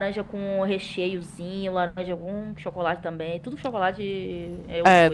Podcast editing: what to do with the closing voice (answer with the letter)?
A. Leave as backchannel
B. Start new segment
B